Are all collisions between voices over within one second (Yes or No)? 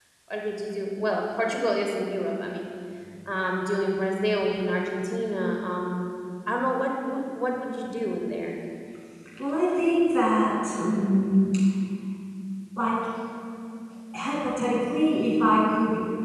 Yes